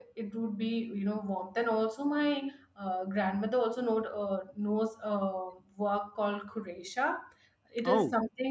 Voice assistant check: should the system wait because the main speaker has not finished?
Yes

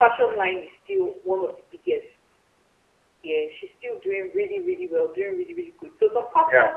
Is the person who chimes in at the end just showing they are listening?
Yes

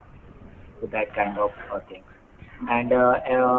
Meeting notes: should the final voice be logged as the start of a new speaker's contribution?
No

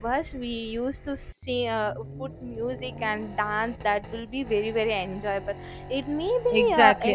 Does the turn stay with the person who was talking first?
No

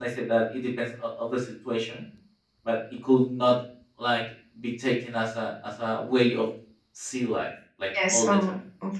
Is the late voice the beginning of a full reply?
Yes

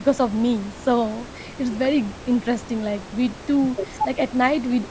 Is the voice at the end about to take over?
No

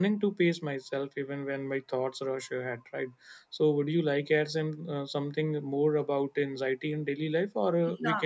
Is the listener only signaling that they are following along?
Yes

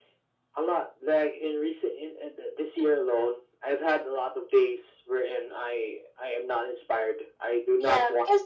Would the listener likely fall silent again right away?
No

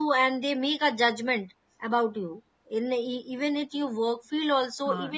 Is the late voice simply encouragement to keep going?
No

